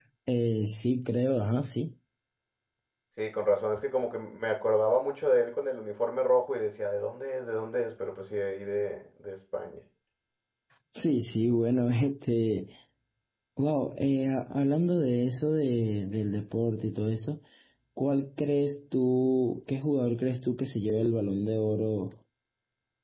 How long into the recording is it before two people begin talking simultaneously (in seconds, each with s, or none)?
none